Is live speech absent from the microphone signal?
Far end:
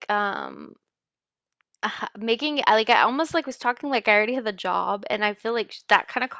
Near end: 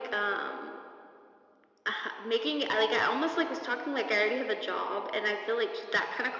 Yes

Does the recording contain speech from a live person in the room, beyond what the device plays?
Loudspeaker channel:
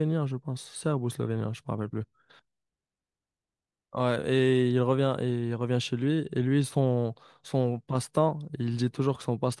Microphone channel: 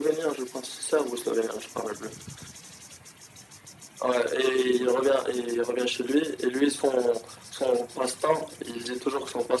No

